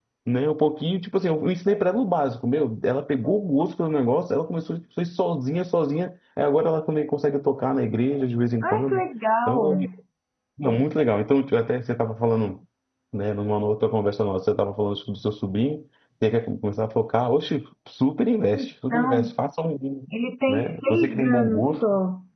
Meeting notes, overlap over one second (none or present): present